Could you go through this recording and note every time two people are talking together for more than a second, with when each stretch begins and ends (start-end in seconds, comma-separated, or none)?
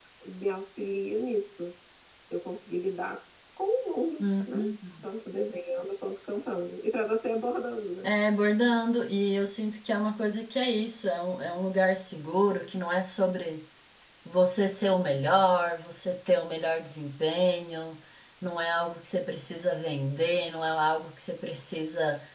none